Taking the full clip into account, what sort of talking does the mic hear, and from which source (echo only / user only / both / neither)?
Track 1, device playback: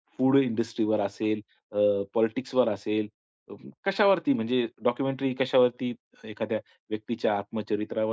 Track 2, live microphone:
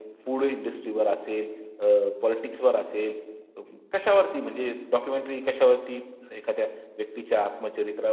echo only